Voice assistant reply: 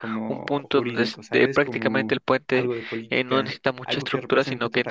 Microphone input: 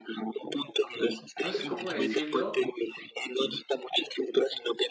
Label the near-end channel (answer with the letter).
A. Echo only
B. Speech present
B